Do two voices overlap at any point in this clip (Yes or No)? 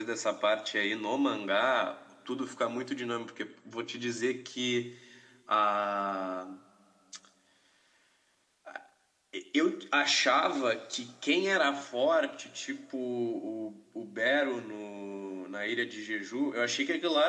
No